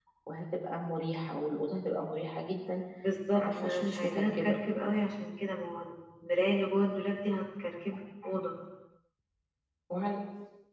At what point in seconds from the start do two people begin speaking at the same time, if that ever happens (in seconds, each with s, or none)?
3.3 s